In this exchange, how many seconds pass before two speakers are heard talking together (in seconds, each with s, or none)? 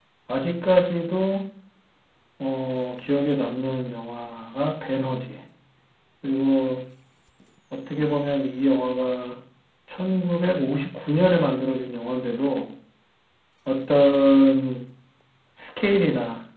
none